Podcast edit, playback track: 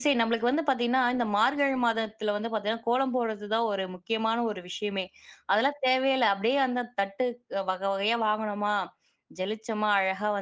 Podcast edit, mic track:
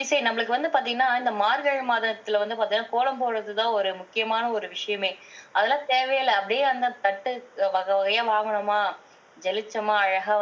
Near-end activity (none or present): none